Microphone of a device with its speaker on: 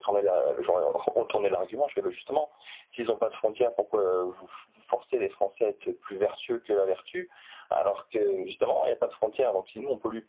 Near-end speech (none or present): none